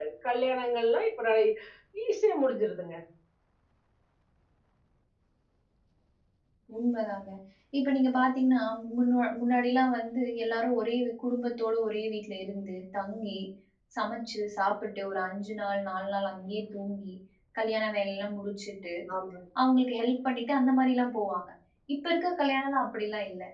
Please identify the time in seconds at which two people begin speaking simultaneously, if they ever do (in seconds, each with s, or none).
none